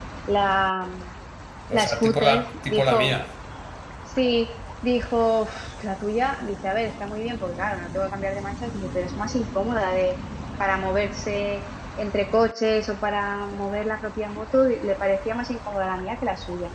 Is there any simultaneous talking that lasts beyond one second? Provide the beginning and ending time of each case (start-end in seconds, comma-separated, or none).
1.7-3.2